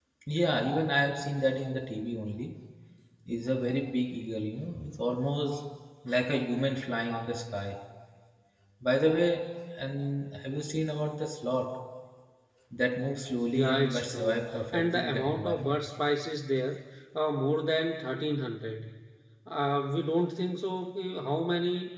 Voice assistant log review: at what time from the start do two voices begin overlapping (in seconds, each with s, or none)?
13.5 s